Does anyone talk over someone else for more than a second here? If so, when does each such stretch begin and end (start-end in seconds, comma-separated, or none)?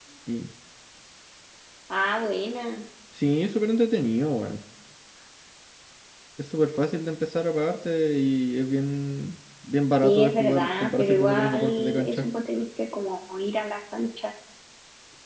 10.0-12.3